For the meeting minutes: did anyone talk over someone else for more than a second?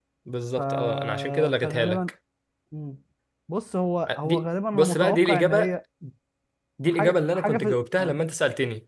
Yes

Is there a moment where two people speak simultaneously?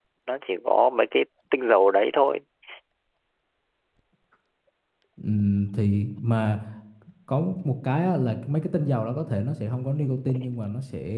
No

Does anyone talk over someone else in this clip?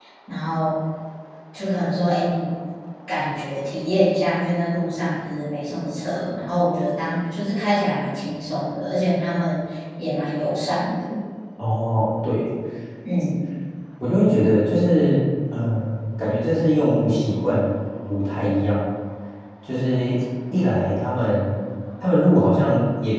No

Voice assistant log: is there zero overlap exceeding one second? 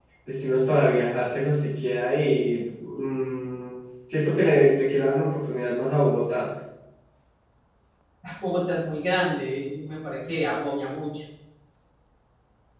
Yes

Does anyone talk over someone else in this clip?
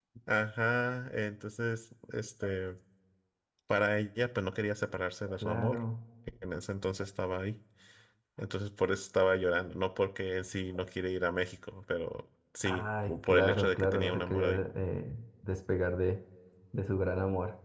Yes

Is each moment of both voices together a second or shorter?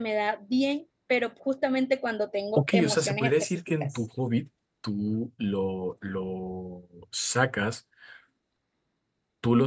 No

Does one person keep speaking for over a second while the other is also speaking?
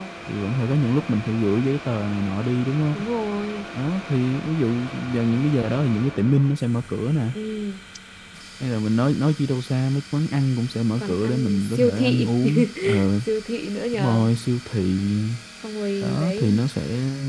Yes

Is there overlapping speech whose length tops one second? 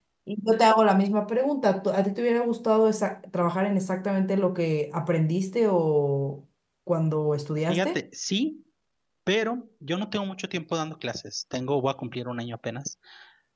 No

